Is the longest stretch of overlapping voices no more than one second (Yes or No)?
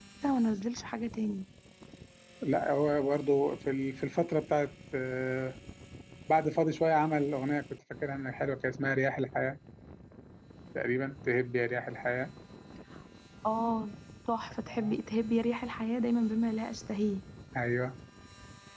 Yes